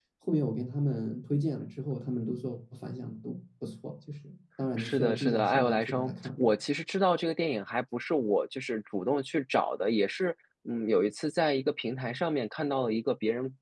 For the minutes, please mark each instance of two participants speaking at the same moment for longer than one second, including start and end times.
4.8-6.5

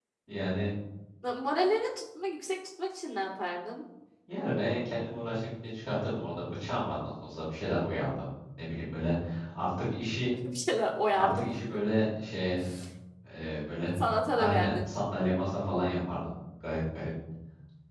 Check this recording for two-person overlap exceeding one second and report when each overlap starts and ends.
none

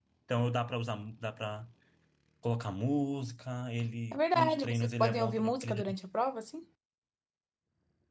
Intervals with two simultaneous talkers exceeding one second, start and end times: 4.1-5.8

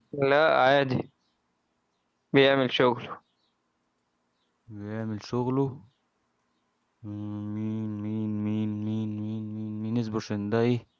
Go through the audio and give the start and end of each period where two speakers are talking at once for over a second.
none

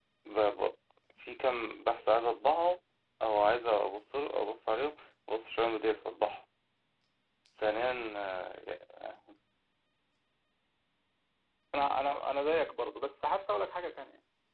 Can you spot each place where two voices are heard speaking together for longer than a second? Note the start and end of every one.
none

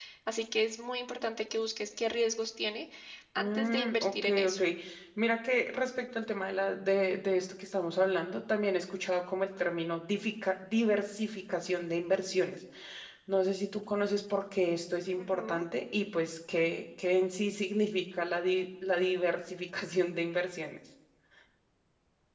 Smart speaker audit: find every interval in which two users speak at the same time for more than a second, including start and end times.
3.4-4.6

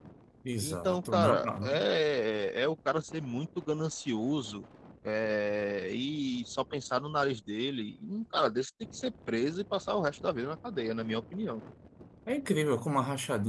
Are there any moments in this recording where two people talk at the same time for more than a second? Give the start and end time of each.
0.6-1.8

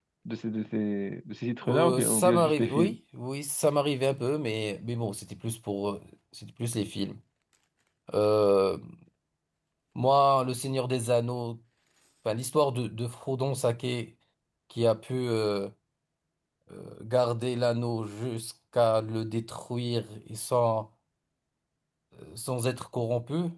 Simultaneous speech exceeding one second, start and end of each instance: 1.6-3.0

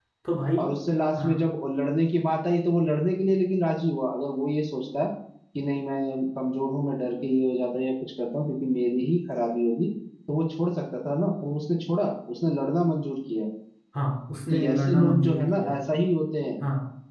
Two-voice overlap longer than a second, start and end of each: 14.5-15.8

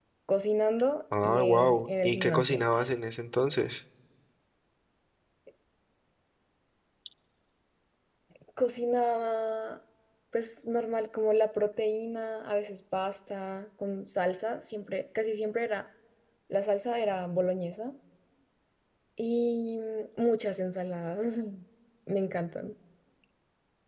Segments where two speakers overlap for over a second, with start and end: 1.2-2.6

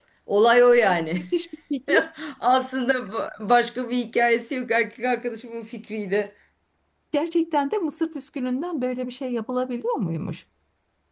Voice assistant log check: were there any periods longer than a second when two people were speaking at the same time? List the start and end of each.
none

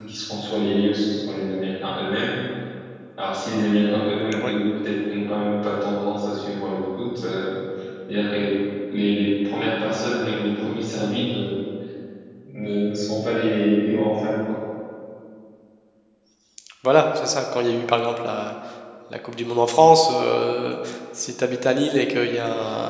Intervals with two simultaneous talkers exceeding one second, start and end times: none

